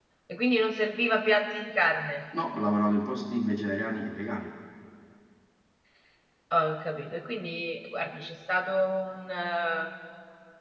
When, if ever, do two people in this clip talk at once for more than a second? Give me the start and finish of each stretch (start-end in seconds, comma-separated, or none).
none